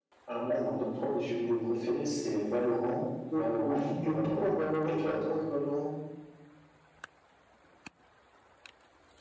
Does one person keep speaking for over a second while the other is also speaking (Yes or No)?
Yes